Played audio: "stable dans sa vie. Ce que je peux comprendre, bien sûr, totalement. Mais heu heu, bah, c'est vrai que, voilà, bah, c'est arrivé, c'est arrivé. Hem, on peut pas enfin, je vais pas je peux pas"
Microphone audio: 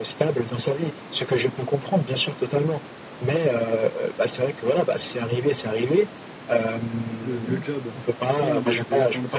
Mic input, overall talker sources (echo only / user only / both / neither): both